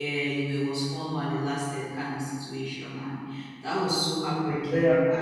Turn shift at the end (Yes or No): No